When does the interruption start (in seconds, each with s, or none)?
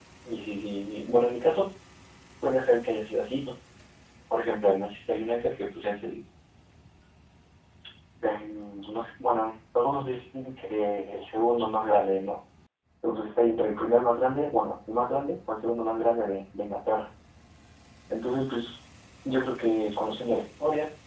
none